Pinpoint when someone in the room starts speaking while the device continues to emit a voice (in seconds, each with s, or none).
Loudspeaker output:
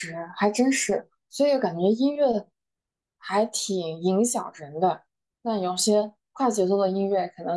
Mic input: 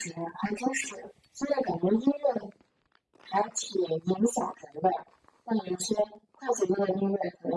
none